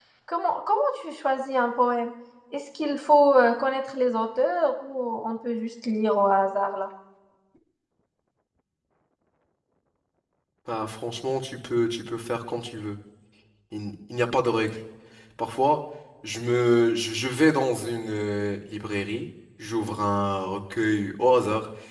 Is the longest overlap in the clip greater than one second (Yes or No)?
No